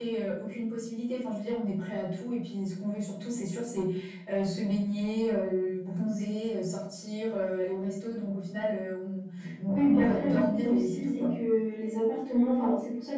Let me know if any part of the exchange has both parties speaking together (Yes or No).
Yes